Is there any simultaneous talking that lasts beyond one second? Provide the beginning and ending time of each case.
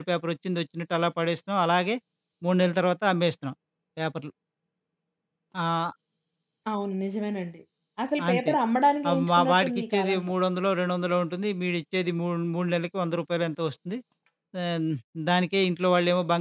9.1-10.3

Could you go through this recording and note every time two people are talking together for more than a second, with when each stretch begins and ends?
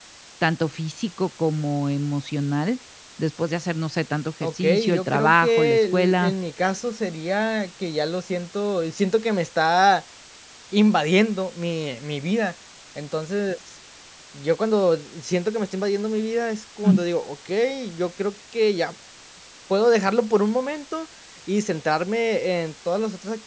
4.4-6.3

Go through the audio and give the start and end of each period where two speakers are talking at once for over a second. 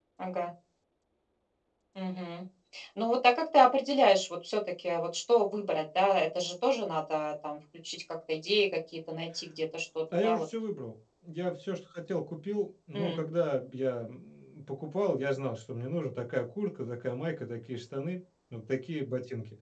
none

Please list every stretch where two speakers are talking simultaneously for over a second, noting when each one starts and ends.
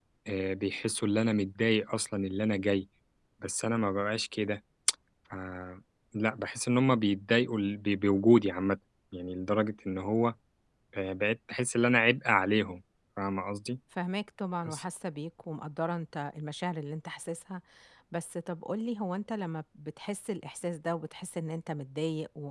none

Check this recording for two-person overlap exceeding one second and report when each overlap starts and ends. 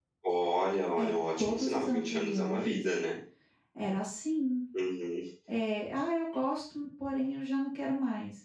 1.0-2.8

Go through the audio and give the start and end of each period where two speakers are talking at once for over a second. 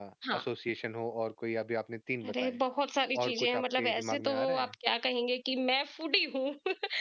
3.2-4.7

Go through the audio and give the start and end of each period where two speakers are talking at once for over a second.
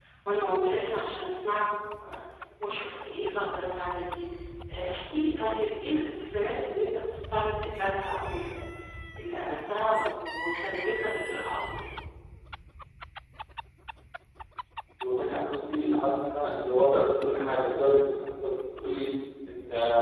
none

